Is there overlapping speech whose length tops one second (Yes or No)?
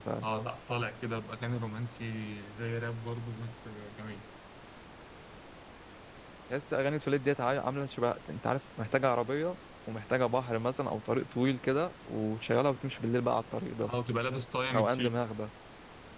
No